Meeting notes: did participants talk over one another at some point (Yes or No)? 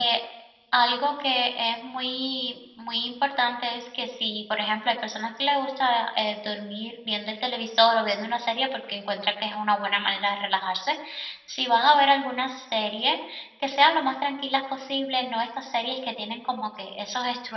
No